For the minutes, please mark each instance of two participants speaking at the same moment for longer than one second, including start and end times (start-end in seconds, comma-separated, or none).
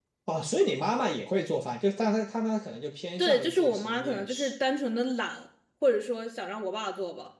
3.2-4.5